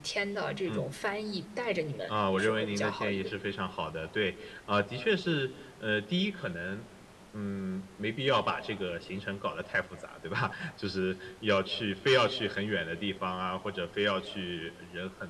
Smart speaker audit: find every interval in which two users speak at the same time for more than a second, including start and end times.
2.1-3.3

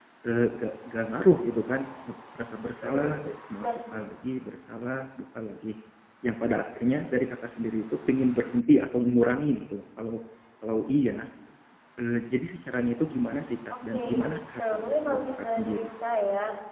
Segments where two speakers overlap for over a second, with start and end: 14.6-15.9

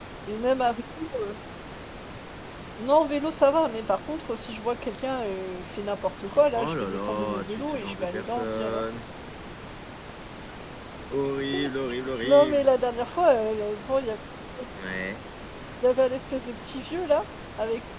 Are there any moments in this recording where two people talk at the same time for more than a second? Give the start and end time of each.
6.5-8.8

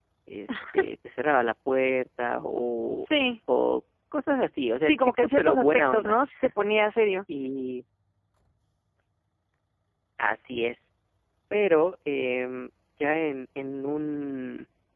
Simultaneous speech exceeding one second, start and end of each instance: 4.8-6.2

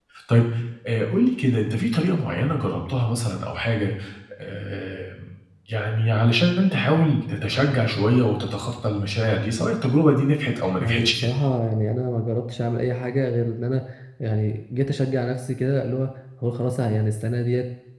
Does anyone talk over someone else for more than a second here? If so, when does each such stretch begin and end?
none

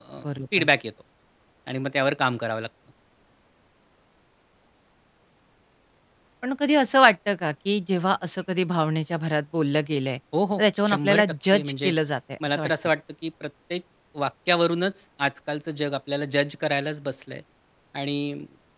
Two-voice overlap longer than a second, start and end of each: 10.6-11.9

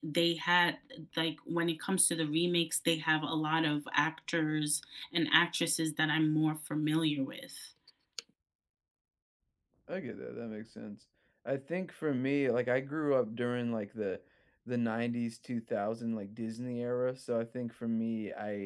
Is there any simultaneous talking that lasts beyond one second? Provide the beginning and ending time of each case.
none

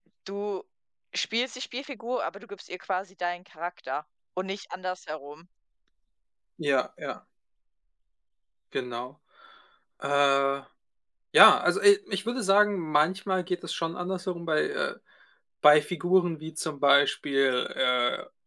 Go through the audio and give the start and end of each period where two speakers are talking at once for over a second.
none

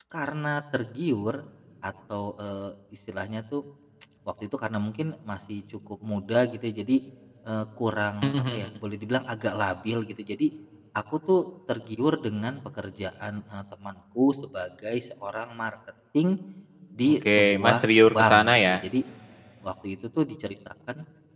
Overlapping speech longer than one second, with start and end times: 17.1-18.7

